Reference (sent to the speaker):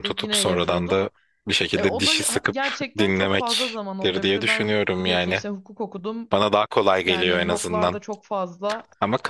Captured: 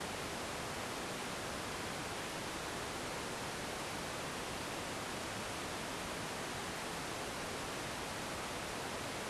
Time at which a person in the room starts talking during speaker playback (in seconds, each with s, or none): none